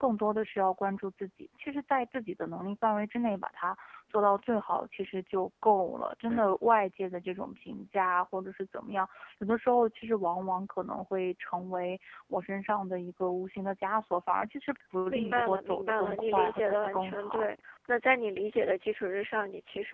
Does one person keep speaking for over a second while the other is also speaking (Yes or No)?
Yes